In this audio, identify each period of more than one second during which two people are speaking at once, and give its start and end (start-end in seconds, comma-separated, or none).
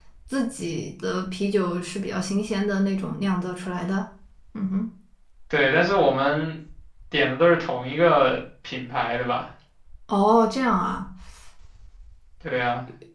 none